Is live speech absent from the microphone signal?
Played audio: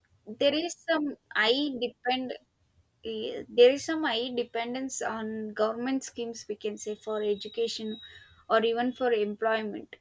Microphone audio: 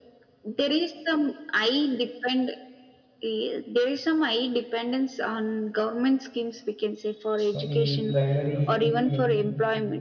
No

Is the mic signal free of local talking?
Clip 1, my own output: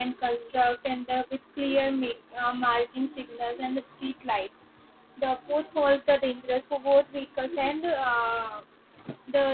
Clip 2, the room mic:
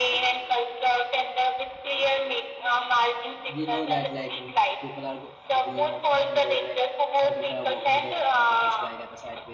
No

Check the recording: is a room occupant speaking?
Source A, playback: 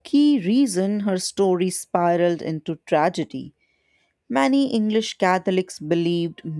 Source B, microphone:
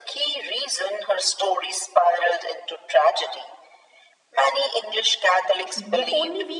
Yes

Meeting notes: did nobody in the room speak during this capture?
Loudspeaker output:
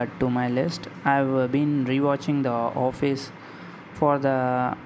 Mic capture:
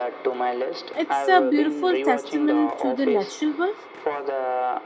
No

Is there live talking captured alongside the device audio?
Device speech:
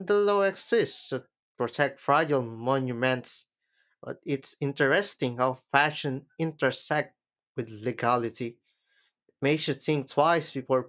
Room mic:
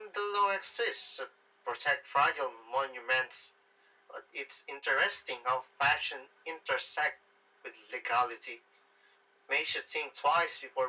No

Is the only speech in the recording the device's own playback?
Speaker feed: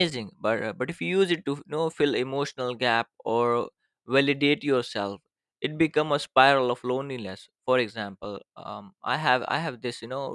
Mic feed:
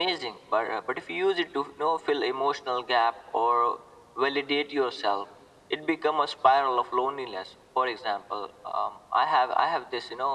Yes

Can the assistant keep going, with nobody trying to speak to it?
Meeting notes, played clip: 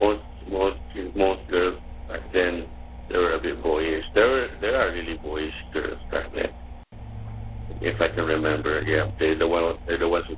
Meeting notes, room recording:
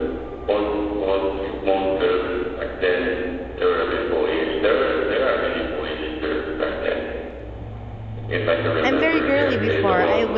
No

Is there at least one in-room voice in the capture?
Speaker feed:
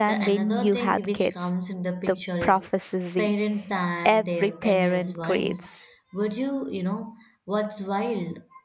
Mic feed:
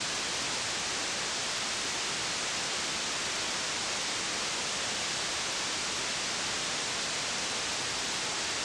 No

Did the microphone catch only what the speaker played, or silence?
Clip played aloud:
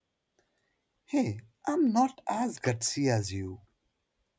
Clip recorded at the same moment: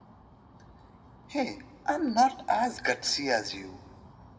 Yes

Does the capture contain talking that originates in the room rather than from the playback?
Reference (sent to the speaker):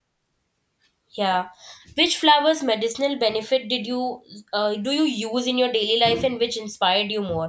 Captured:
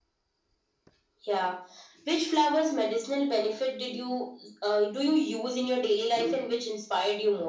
No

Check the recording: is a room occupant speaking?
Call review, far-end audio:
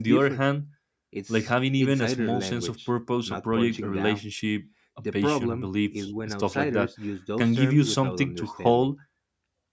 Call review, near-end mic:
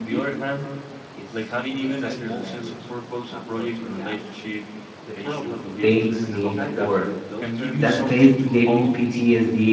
Yes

